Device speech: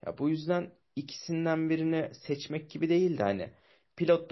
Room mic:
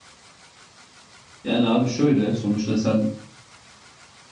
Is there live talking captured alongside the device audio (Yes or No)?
Yes